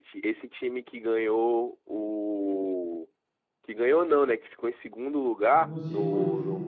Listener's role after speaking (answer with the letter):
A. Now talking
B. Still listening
B